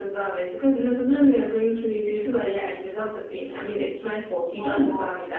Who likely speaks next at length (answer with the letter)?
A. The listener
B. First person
B